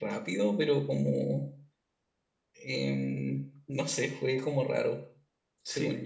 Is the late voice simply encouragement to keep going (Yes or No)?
No